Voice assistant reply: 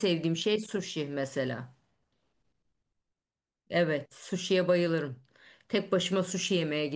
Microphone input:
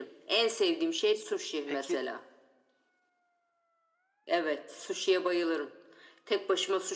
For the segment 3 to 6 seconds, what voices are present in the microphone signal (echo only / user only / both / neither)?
echo only